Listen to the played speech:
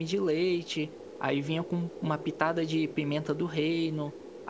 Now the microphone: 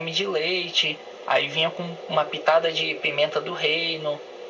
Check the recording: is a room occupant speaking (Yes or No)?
No